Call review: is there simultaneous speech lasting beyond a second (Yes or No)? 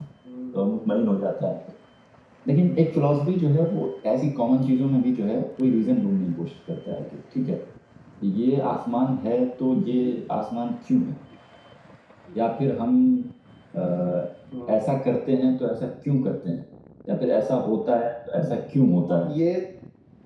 No